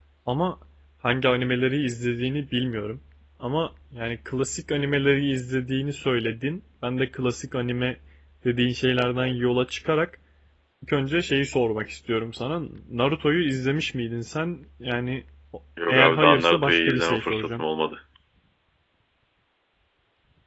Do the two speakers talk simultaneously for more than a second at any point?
Yes, from 15.8 s

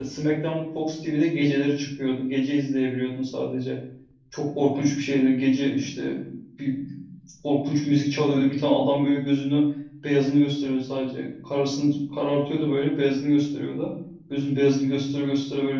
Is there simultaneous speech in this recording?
No

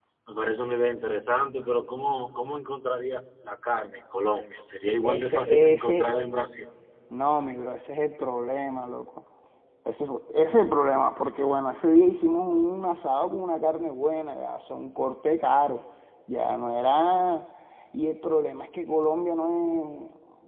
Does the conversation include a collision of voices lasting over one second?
Yes, from 5.0 s

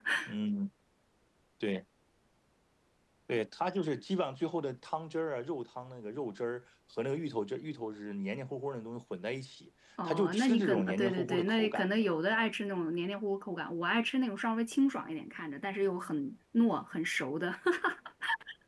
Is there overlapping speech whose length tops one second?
Yes, from 10.0 s

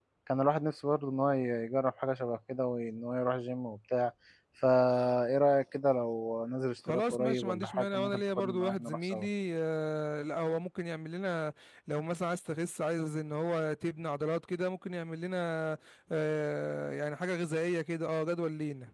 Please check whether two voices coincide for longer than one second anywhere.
Yes, from 6.8 s

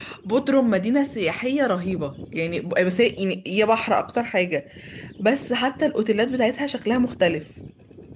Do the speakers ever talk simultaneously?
No

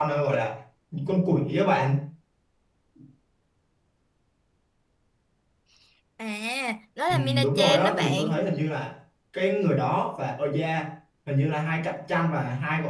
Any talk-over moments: Yes, from 7.1 s

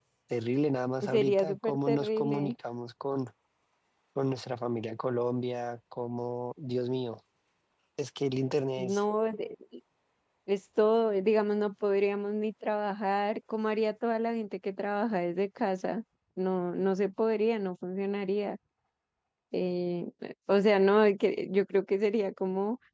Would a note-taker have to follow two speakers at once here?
Yes, from 1.1 s

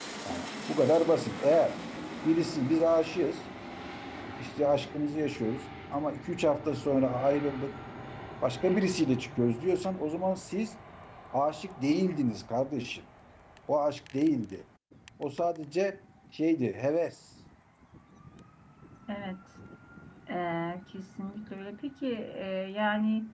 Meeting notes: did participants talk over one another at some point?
No

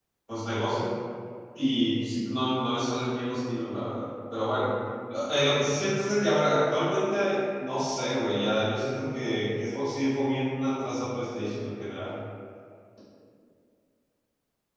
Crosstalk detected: No

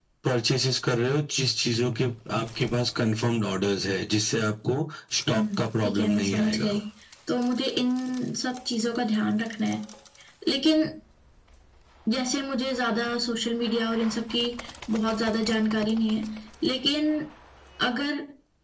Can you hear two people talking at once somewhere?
Yes, from 5.3 s

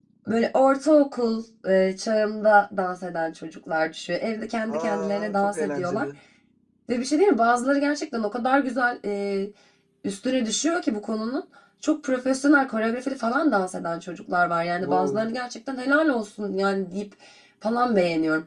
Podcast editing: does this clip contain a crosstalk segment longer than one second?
Yes, from 4.7 s

